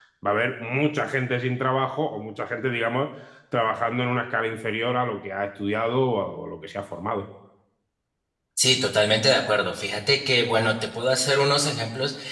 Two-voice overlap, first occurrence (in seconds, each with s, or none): none